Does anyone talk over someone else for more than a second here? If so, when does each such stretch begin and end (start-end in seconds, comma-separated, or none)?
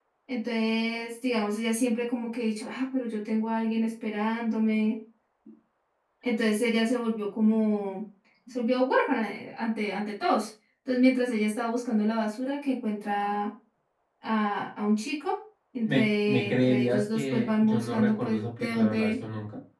15.8-19.1